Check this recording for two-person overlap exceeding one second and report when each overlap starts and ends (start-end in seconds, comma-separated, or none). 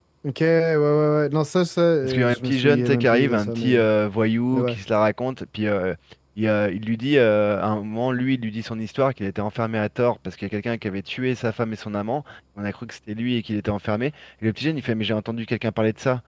2.0-3.9